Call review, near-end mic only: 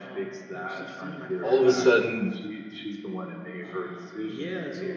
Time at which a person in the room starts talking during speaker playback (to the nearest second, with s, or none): 1 s